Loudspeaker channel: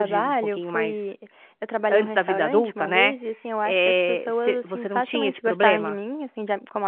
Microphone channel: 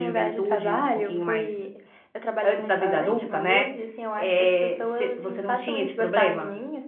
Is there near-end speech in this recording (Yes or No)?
No